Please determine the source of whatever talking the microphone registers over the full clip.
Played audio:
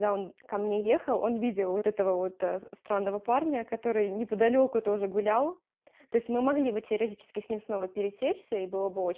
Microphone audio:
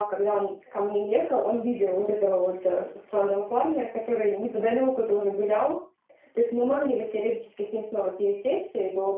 echo only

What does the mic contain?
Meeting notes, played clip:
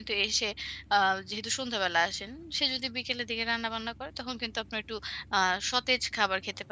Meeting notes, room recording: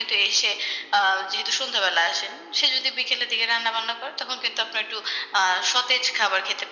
echo only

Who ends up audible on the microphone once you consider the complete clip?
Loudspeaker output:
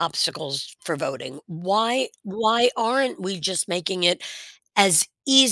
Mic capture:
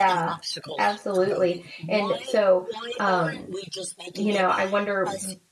both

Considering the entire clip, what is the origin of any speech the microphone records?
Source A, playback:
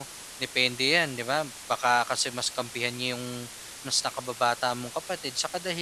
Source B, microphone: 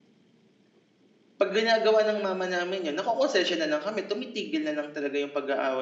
user only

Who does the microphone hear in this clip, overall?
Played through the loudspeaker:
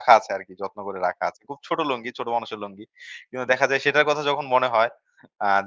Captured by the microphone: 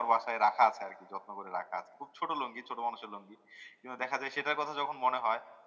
echo only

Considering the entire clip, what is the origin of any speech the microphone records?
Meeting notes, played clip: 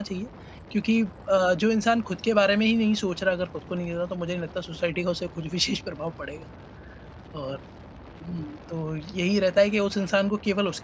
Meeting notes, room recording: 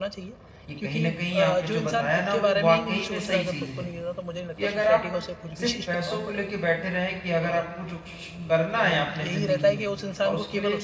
both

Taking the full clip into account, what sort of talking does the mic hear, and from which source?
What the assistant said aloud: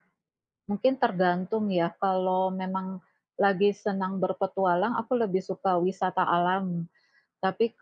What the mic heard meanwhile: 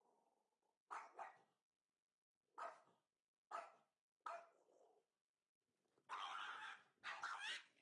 neither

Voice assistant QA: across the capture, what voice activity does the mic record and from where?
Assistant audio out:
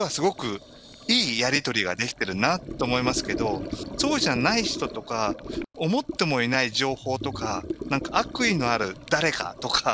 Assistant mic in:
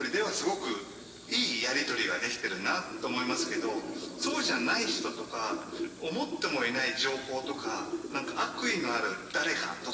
echo only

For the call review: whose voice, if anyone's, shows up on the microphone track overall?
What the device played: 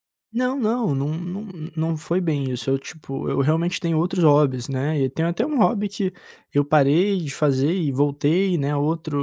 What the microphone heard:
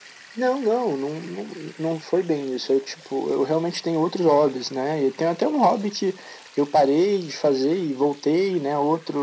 echo only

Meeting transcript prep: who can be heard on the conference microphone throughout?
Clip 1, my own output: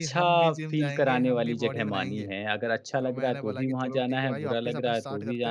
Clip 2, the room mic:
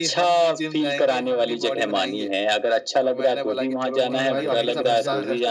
both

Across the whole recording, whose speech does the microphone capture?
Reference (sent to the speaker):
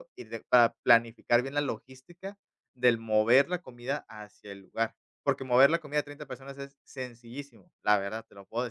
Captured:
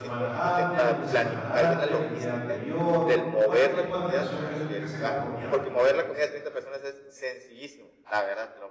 both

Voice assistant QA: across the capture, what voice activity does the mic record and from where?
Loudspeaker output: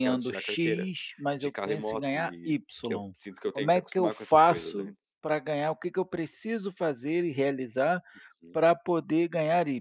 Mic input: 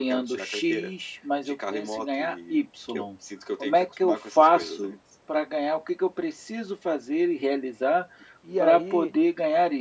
both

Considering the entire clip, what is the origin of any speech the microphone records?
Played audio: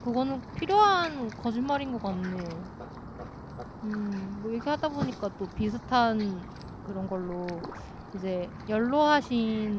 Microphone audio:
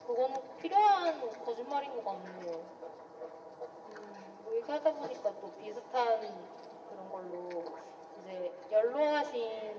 echo only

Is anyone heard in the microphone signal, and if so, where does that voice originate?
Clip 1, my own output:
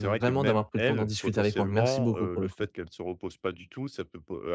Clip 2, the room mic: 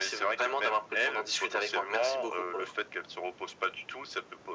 echo only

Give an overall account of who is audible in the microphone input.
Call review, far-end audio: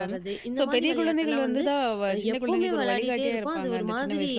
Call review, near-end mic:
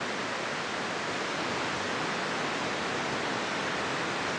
neither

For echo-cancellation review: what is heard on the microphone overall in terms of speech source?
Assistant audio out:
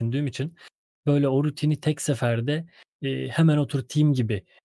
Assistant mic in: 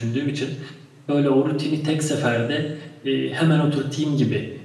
echo only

